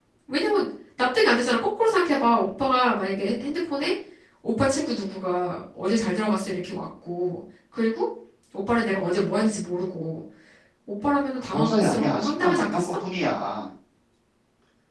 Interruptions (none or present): present